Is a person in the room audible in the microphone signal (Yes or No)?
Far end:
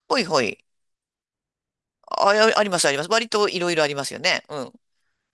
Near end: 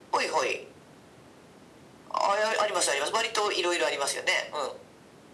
No